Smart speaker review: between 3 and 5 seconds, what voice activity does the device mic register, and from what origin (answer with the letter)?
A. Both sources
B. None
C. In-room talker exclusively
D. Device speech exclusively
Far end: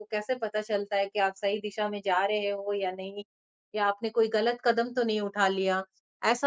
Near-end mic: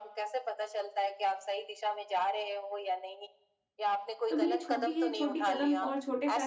A